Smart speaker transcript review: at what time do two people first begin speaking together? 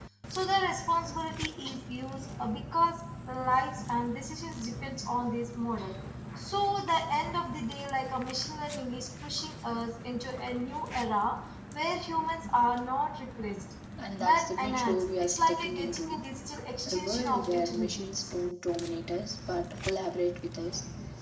14.2 s

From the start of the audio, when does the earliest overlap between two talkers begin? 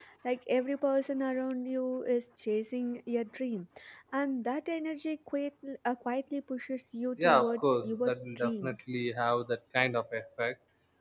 7.2 s

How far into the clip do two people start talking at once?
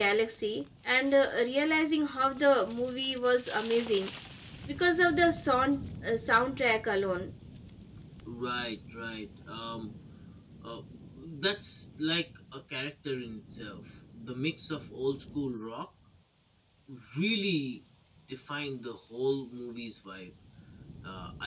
none

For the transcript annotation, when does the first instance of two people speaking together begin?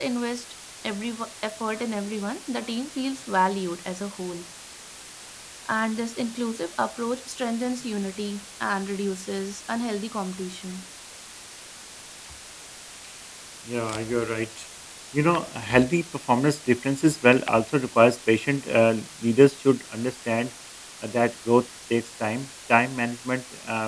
none

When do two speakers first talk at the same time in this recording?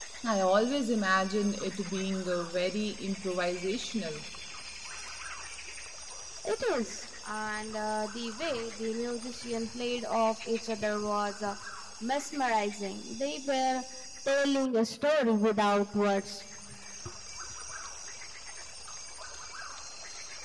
none

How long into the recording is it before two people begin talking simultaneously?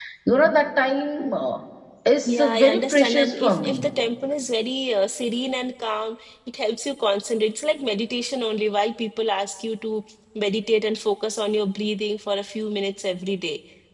2.3 s

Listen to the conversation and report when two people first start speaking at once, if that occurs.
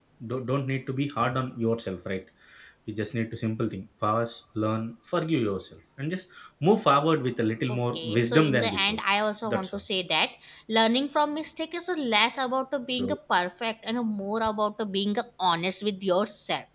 7.7 s

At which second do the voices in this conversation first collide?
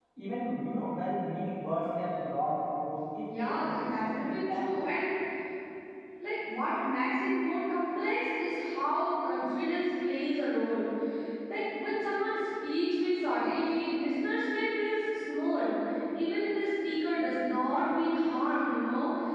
3.3 s

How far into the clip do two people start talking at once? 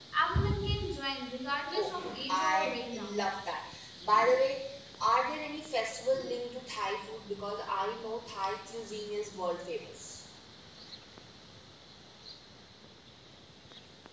1.7 s

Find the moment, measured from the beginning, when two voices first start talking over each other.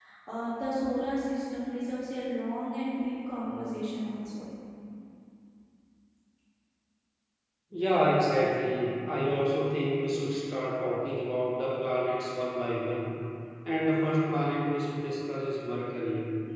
none

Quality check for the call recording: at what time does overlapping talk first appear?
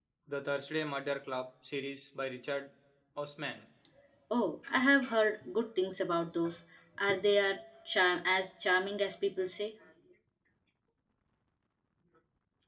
none

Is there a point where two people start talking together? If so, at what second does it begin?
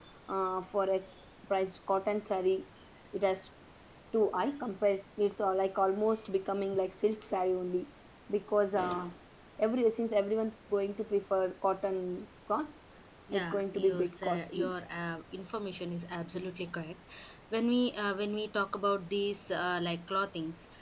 13.3 s

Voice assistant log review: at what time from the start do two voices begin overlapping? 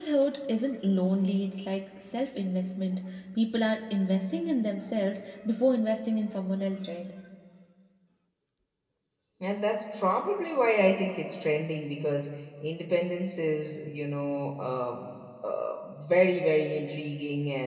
none

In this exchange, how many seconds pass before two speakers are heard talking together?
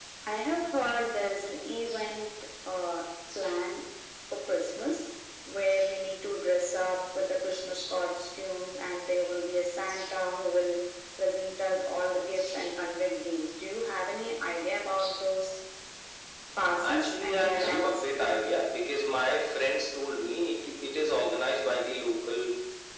16.9 s

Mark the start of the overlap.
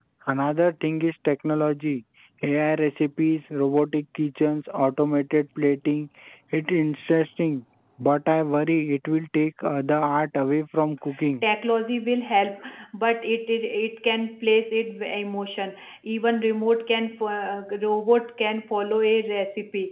none

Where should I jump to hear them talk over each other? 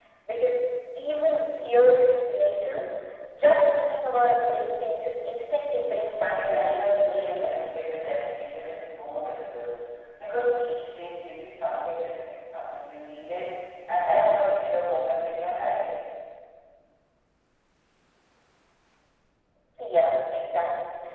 6.2 s

